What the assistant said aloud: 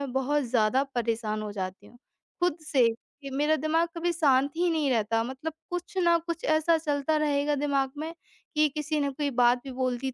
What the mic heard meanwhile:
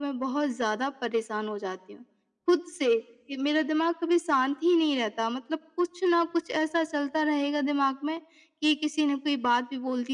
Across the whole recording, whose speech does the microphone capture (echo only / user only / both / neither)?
echo only